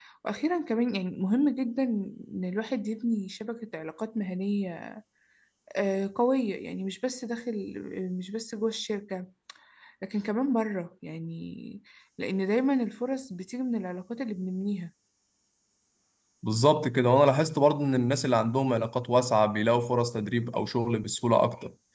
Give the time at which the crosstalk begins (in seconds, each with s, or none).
none